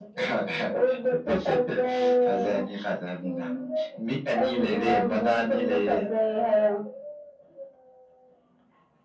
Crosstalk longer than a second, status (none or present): present